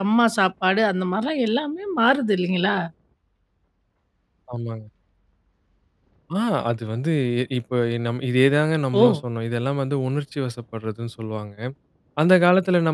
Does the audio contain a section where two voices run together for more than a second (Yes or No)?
No